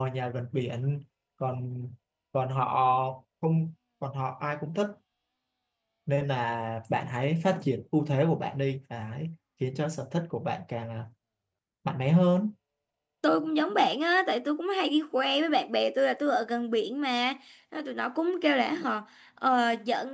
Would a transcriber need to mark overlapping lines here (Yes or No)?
No